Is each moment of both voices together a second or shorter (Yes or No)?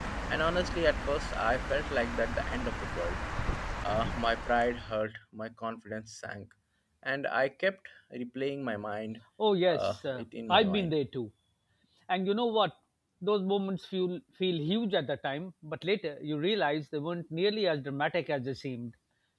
No